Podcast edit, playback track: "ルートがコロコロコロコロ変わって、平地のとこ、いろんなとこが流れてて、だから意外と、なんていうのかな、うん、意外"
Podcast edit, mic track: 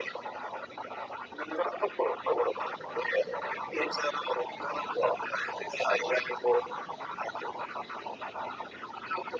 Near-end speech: none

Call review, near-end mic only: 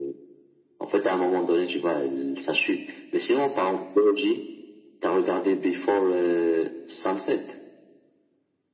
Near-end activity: none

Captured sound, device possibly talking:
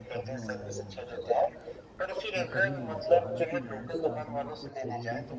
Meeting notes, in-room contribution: present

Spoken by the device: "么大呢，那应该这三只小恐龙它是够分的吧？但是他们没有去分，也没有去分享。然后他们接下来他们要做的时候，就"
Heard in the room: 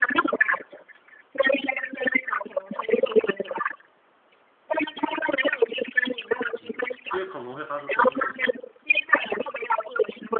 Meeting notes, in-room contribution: present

